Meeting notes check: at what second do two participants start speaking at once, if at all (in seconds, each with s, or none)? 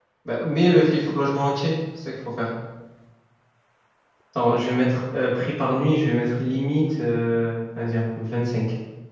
none